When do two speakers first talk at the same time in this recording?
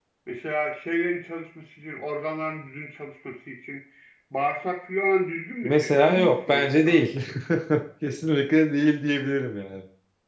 5.6 s

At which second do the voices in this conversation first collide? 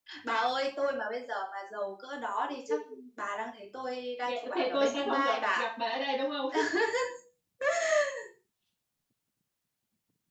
4.2 s

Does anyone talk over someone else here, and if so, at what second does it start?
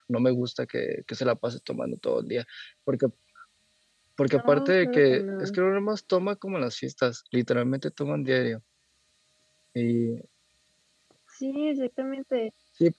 4.2 s

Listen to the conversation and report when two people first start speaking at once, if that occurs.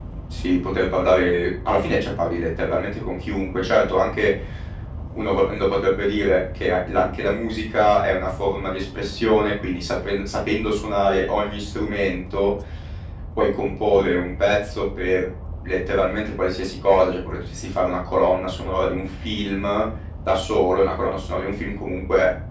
none

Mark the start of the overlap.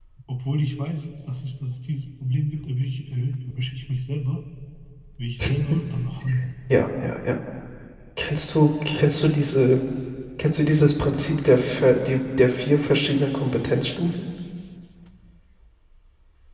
none

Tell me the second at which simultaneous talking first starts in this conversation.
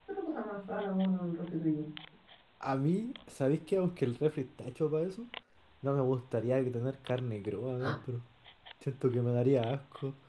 none

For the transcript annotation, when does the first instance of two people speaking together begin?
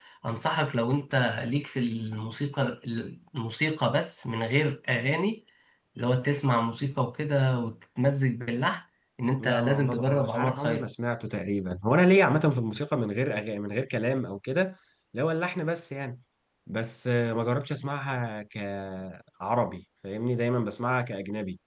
9.4 s

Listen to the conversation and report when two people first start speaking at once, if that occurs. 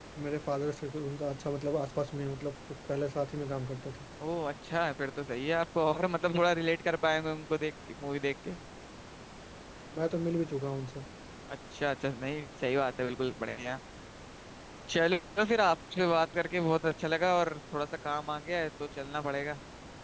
none

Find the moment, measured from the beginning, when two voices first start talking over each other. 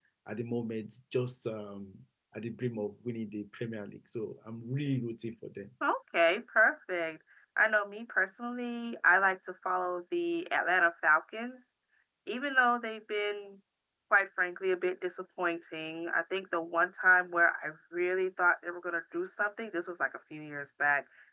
none

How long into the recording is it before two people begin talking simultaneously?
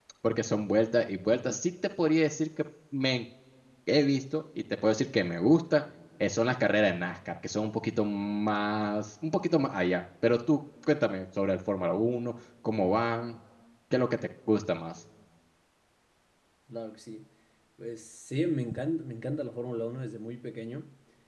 none

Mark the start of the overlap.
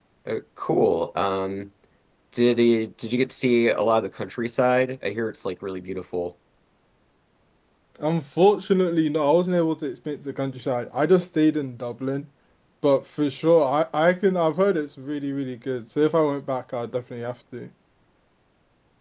none

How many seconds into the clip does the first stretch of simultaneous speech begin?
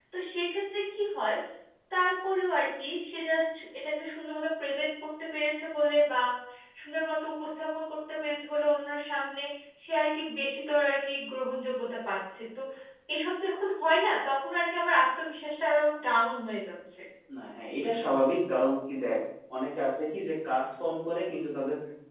none

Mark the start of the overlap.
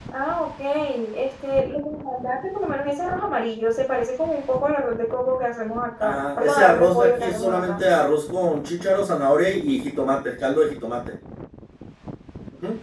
6.0 s

